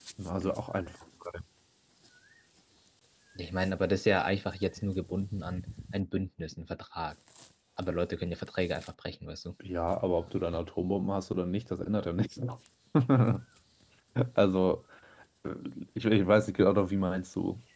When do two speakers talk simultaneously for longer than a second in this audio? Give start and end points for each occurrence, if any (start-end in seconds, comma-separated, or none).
none